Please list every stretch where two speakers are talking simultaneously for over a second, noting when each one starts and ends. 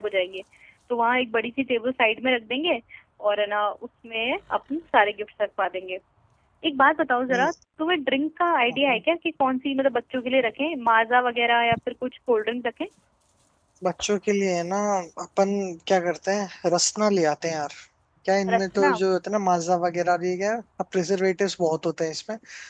none

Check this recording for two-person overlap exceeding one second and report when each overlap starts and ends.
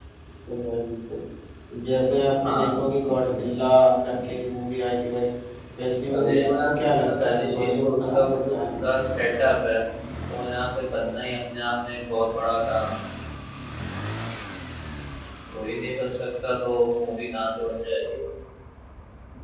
6.1-8.7

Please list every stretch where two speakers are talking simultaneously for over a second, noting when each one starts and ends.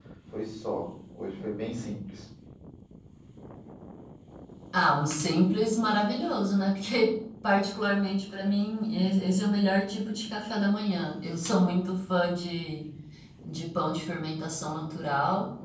none

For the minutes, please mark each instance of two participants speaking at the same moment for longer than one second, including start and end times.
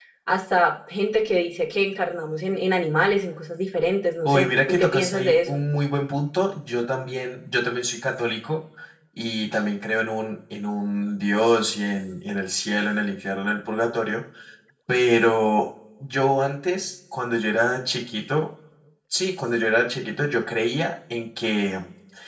4.2-5.6

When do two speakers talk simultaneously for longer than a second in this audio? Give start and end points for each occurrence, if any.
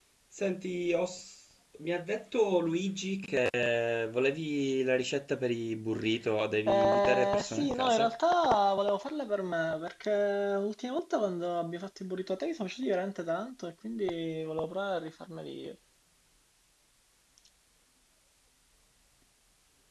6.7-8.1

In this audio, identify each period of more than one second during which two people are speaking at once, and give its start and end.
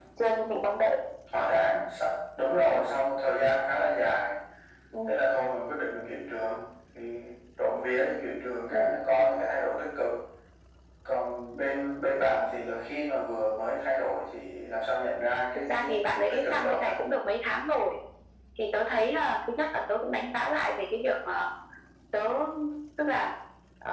15.6-16.9

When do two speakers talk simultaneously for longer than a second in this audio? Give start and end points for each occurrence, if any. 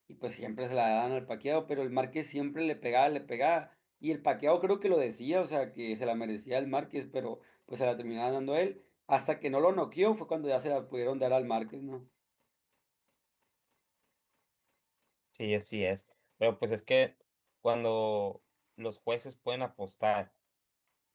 none

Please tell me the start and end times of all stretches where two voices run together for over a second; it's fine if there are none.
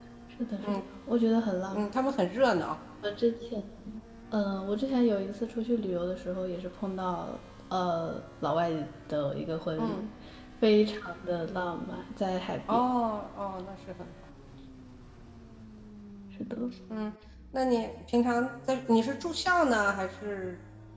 none

